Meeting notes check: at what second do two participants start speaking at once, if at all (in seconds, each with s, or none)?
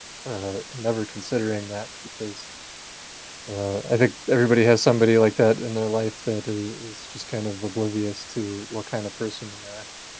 none